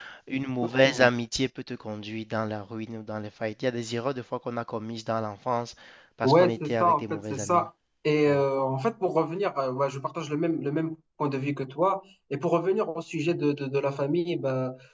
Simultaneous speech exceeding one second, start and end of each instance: 6.2-7.7

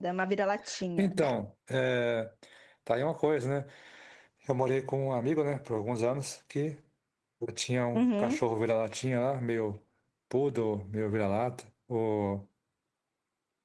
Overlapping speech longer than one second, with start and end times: none

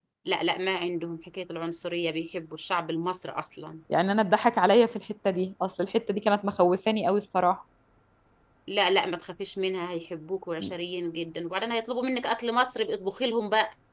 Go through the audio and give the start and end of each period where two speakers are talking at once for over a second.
none

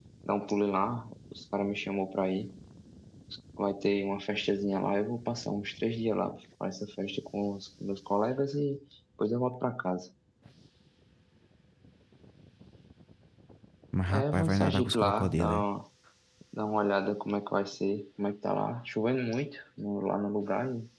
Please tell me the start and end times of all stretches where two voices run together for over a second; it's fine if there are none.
14.1-15.6

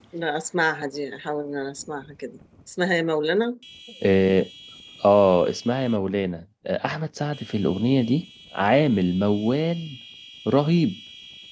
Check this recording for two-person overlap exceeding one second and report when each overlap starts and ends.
none

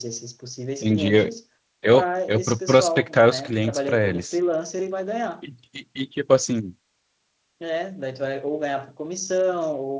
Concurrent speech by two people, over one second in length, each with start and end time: 1.9-4.4

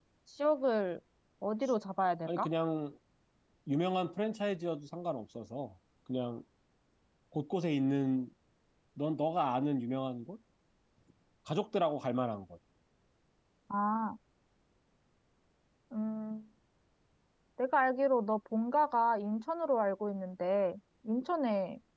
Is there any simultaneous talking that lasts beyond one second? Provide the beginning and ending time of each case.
none

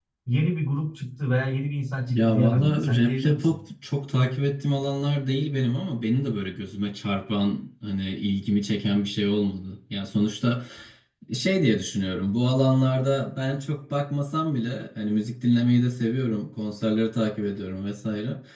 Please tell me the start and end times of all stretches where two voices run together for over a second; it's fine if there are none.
2.2-3.6

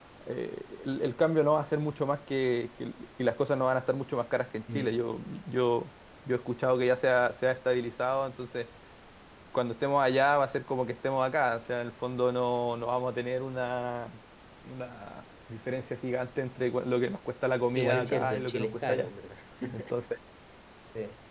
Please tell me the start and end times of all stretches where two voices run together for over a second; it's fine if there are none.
17.7-19.1

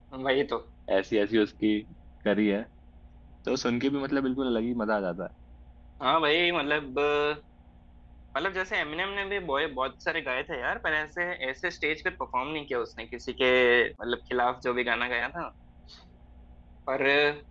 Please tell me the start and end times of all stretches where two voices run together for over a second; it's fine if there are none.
none

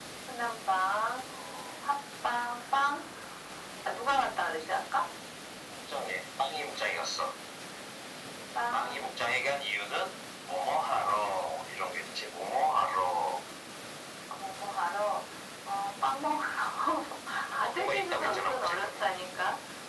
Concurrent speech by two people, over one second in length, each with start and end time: 17.6-18.9

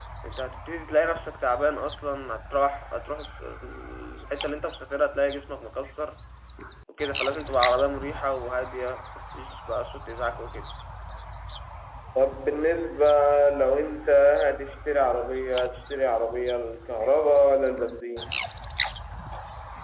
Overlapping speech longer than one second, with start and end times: none

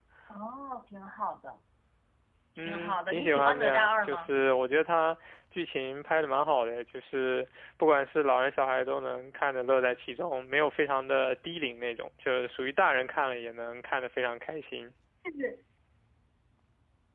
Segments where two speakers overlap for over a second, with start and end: 2.6-4.3

